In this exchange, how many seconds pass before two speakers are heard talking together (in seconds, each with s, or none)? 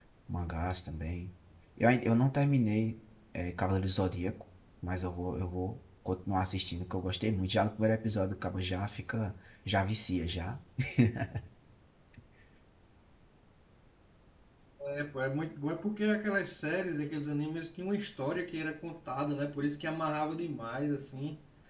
none